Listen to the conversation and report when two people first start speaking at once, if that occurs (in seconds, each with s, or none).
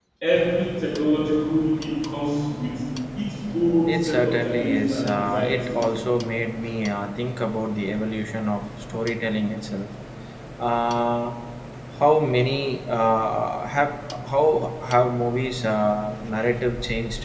3.9 s